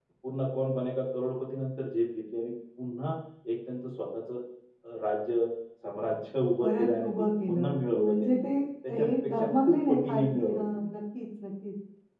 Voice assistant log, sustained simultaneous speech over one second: present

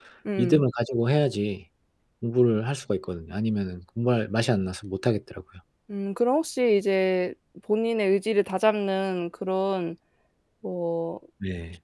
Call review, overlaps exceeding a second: none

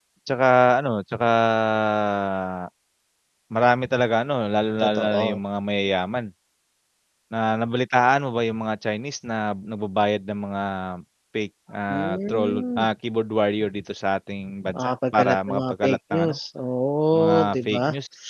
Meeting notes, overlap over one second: present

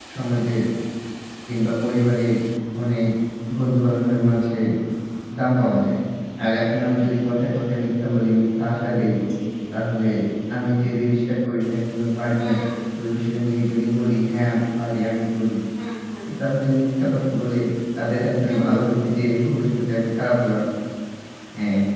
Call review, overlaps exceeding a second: none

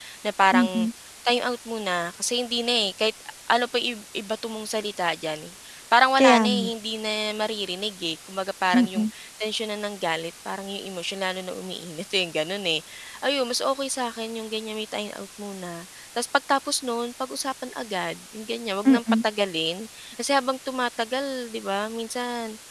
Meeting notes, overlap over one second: none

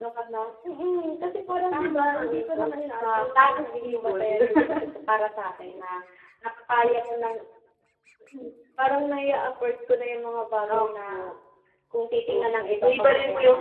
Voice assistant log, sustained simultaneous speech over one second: present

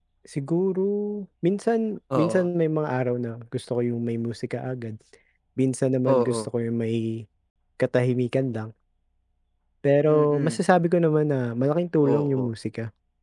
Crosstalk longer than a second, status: none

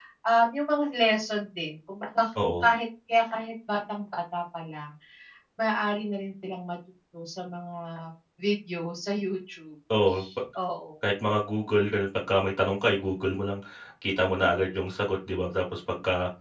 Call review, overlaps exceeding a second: none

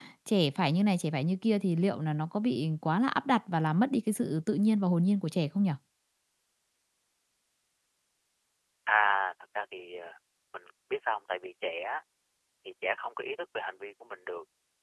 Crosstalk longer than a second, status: none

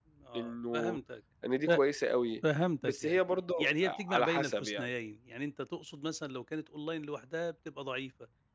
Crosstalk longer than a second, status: present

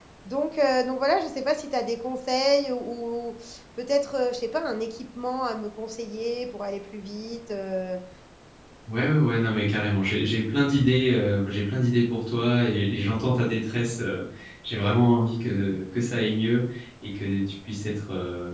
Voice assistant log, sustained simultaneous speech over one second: none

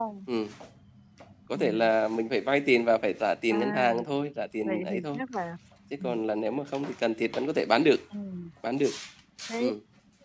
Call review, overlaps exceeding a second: none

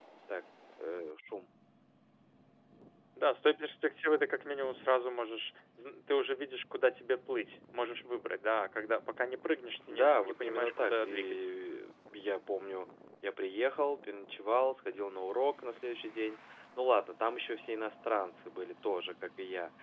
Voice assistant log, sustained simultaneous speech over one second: present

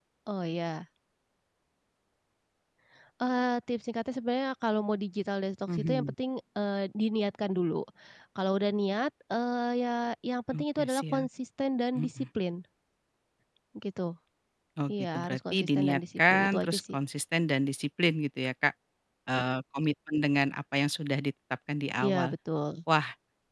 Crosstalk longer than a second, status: present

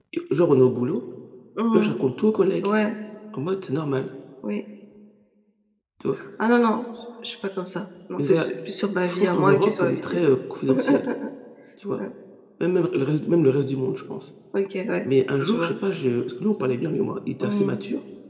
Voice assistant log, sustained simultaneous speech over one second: present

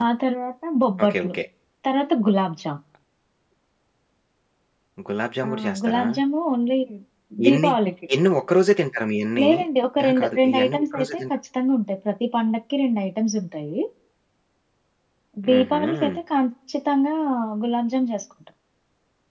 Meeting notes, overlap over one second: present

